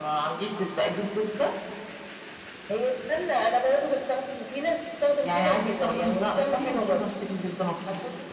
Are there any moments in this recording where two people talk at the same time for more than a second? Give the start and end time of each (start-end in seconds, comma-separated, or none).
5.2-7.0